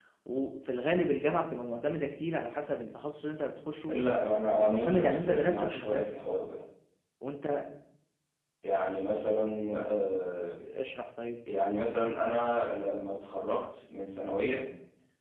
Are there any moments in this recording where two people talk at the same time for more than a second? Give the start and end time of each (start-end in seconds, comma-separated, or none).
4.6-6.2